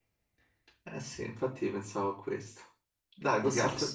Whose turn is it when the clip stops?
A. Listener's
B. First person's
A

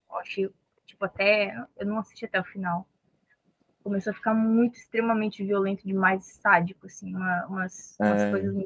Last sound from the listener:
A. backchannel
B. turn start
A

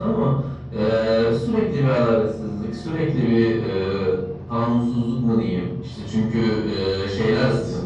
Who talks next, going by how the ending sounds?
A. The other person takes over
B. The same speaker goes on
B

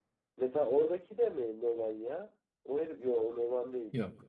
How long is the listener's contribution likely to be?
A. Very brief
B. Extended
A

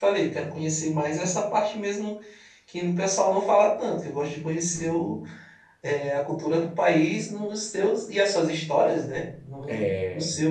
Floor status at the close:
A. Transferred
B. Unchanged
B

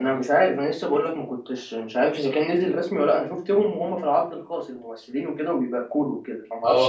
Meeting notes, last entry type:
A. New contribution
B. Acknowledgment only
A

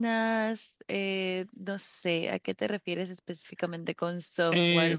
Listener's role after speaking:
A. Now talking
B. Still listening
A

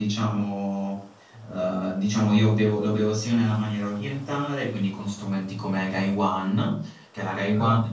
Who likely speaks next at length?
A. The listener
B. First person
B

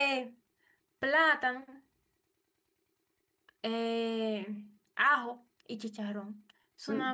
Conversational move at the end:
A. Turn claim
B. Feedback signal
A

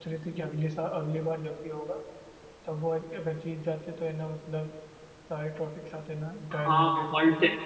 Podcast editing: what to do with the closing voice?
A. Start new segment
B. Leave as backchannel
A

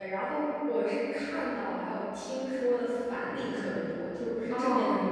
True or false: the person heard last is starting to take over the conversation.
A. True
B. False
B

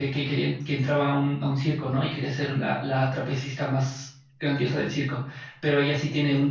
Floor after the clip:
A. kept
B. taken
A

